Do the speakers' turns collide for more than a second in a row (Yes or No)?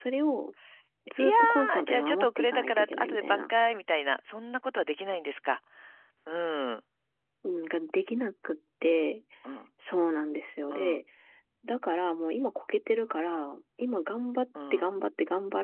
Yes